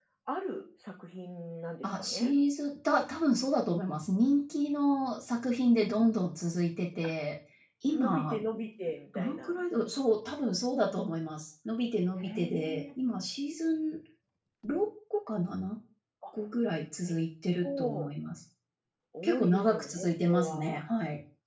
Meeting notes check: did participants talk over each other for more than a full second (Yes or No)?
Yes